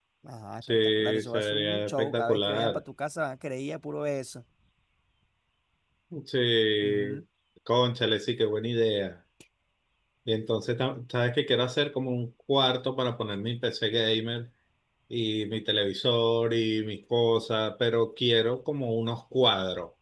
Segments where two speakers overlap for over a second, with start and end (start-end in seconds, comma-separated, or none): 0.6-2.8